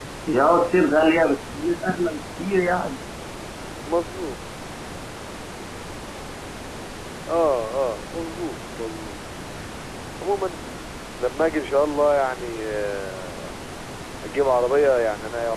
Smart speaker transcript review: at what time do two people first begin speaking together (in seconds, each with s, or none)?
none